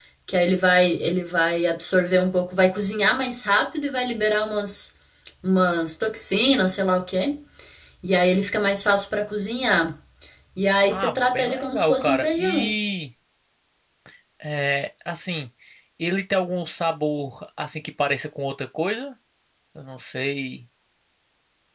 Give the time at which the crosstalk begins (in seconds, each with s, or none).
10.9 s